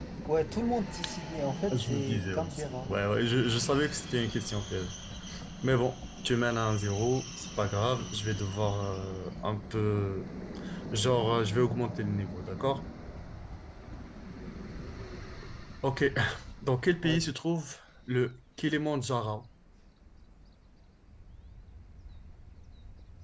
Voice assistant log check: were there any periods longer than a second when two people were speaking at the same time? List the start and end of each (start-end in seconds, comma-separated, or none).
1.6-2.9